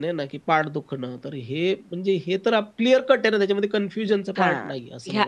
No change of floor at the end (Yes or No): No